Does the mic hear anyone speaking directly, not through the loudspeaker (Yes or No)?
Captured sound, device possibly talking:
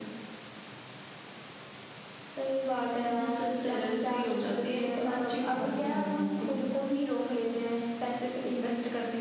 No